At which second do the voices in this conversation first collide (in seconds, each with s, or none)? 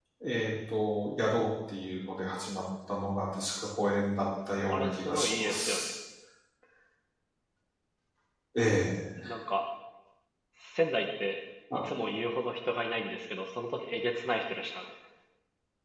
4.7 s